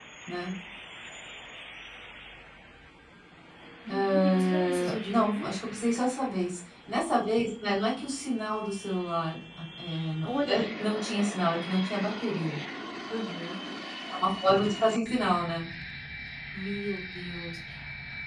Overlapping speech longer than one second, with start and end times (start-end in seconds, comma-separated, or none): 3.9-5.5